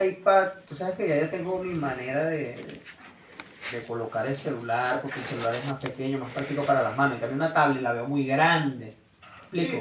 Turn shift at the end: Yes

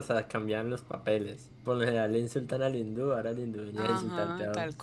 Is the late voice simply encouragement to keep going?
No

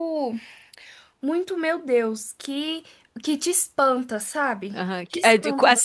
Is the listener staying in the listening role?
No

